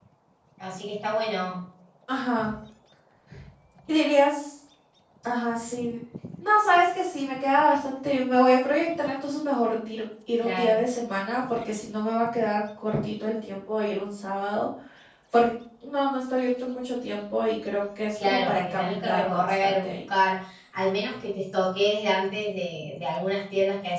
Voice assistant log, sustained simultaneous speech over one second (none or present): present